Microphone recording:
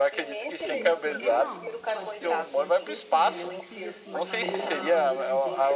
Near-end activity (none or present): present